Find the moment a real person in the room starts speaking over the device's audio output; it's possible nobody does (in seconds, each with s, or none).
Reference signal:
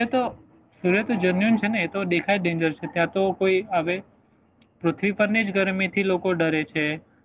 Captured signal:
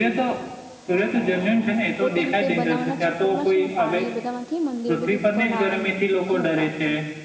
2.0 s